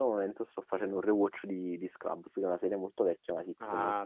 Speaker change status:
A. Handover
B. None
A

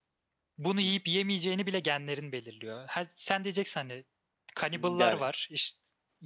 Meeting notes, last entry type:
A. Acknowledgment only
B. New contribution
A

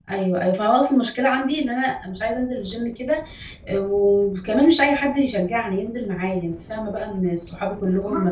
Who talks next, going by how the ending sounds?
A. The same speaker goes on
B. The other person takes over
A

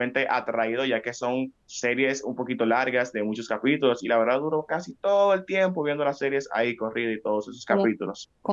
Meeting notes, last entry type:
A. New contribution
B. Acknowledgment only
A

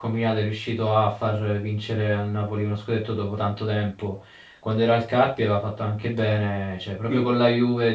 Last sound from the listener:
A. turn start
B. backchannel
B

